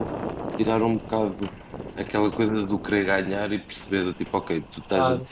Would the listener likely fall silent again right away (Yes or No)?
Yes